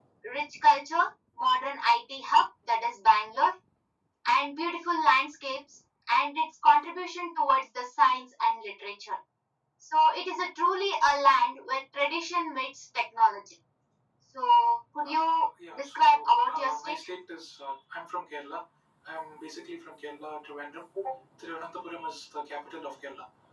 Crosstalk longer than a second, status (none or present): present